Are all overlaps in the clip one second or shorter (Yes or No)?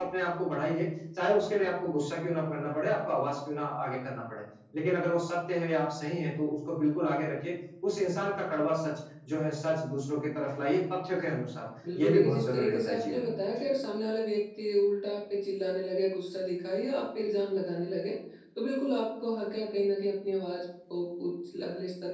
No